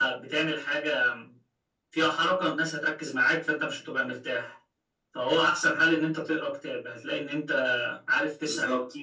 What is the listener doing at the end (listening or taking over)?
listening